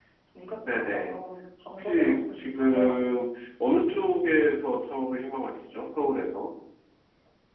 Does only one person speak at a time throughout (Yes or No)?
No